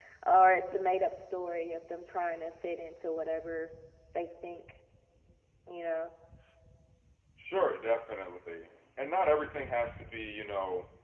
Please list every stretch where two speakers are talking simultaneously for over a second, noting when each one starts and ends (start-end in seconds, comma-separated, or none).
none